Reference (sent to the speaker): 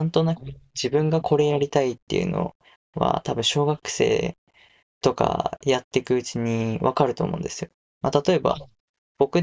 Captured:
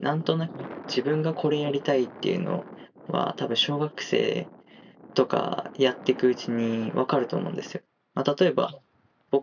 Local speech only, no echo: none

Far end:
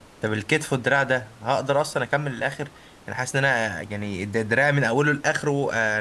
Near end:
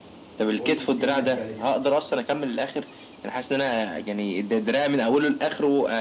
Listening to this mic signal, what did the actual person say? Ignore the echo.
اولد سكول مينتاليتي

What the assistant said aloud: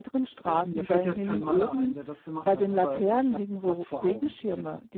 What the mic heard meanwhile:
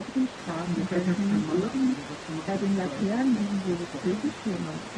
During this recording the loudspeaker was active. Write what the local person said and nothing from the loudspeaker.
none

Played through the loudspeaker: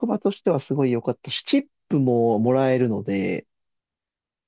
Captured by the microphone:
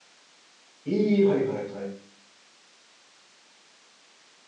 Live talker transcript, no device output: ええはいはいはい。

